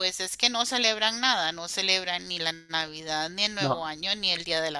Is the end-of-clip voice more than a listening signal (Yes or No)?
No